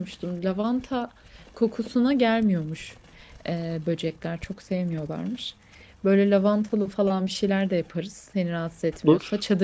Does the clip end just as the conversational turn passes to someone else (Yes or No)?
No